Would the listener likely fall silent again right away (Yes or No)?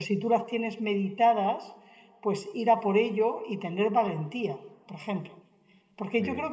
Yes